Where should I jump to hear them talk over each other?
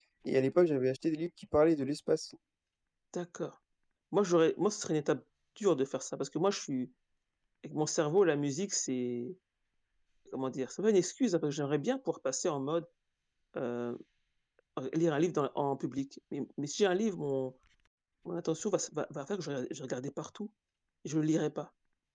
none

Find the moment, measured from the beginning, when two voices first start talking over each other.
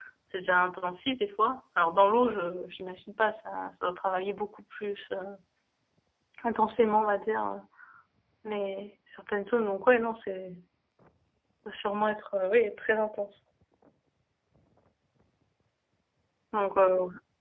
none

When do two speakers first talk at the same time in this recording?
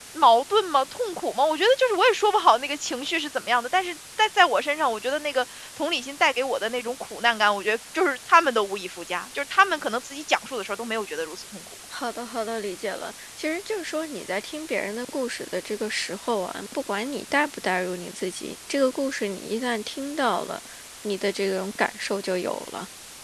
none

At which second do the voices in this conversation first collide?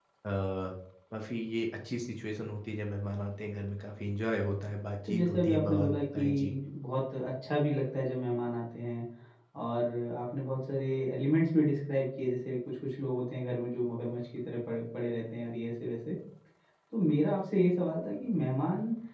5.0 s

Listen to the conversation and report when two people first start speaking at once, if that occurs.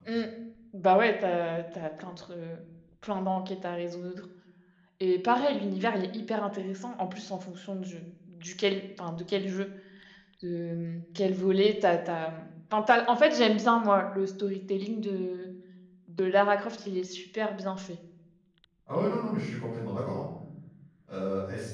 none

